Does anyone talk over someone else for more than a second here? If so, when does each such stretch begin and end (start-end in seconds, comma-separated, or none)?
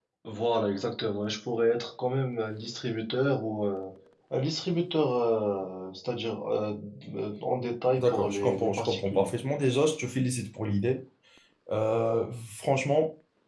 8.0-9.3